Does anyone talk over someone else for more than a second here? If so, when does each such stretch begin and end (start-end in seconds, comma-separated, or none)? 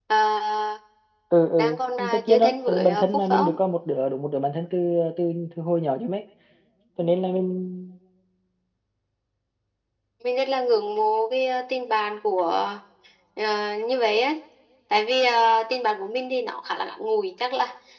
2.1-3.6